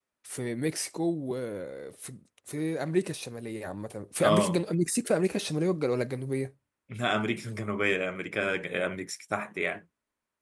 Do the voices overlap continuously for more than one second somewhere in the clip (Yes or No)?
No